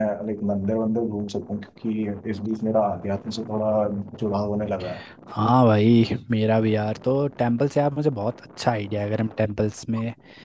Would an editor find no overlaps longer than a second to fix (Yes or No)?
Yes